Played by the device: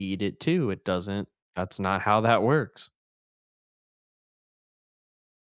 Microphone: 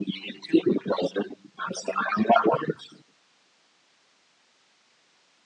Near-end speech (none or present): none